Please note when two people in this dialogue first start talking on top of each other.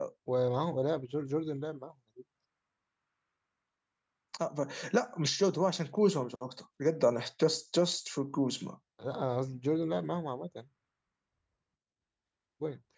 none

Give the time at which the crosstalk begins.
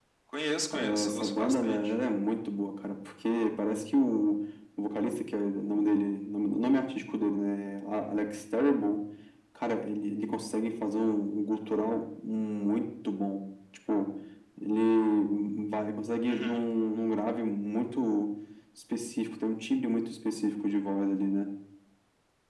0.7 s

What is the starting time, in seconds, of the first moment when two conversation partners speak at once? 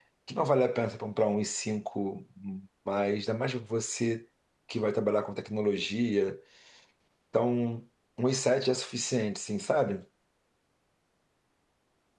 none

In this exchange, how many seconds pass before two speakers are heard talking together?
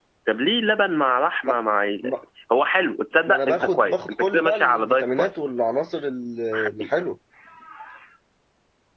3.3 s

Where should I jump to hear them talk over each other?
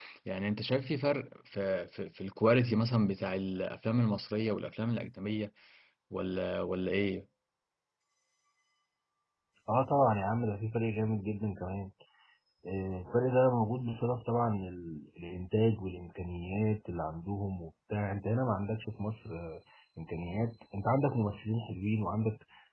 none

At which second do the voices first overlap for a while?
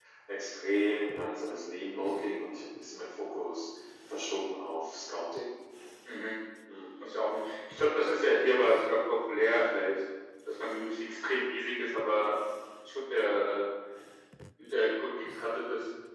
none

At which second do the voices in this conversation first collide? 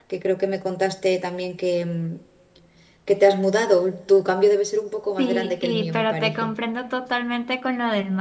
5.2 s

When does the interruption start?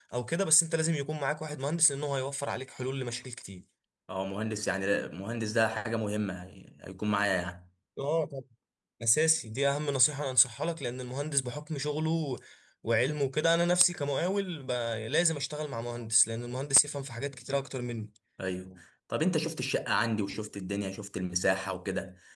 none

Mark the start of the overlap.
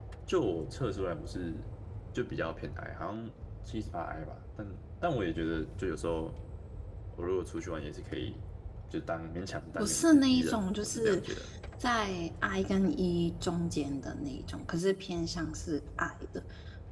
9.8 s

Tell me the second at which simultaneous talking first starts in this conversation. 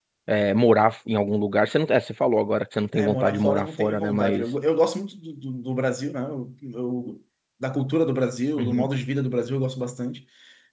3.0 s

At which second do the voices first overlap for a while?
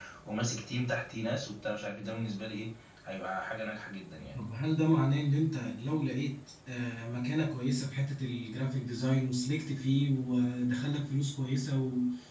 none

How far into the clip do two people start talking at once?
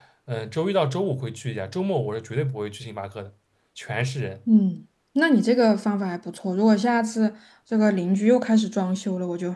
none

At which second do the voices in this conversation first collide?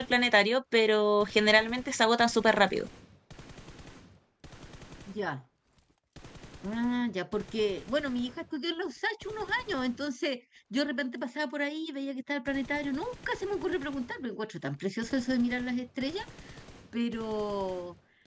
none

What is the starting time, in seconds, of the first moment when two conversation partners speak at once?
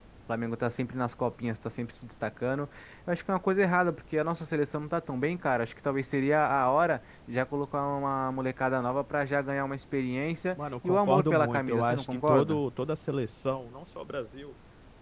10.8 s

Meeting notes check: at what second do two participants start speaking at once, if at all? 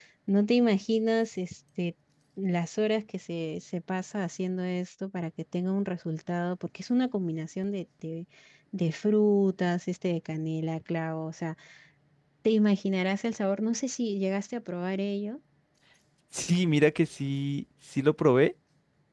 none

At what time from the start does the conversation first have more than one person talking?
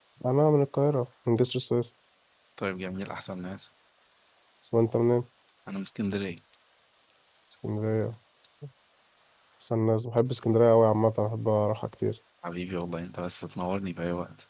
none

